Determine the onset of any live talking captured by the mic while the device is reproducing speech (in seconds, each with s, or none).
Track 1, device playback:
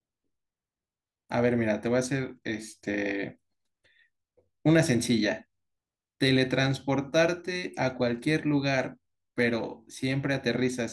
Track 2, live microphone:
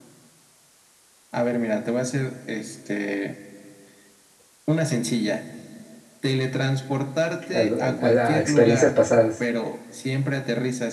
7.5 s